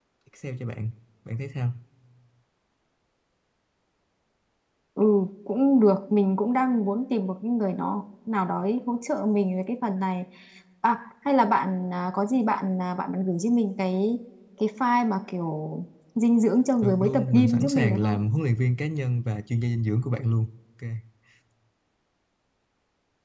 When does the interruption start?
16.8 s

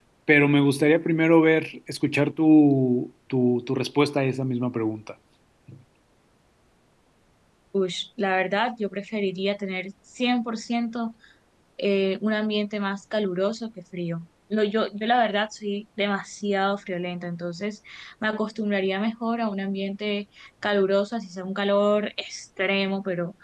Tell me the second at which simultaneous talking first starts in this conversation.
none

